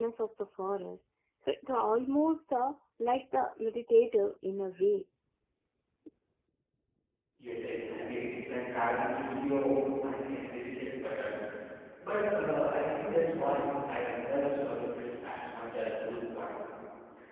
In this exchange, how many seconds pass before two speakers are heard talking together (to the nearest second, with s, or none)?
none